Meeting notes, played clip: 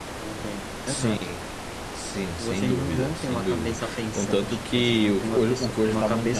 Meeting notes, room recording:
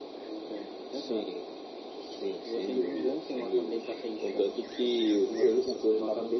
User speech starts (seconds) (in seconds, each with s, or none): none